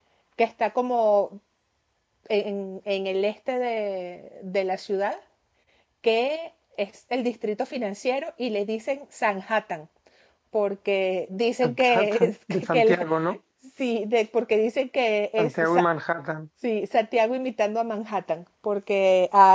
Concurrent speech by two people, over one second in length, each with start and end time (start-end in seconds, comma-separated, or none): 11.6-13.0